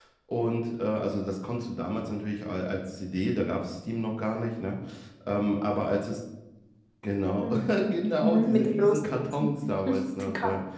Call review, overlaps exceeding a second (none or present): present